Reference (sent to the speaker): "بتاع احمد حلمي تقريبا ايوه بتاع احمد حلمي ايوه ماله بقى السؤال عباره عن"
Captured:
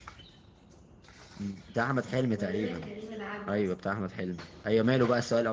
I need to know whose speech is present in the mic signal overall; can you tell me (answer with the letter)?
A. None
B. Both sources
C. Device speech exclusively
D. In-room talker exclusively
B